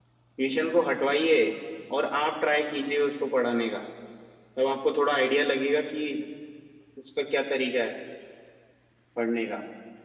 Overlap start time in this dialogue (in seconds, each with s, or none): none